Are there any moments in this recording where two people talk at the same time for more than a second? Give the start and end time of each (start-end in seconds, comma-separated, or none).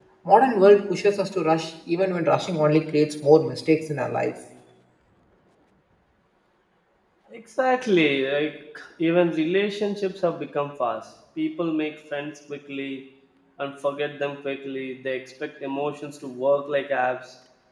none